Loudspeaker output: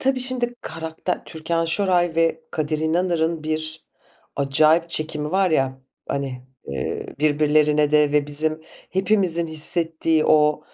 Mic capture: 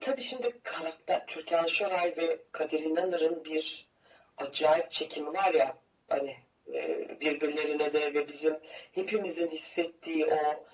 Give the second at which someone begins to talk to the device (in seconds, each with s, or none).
none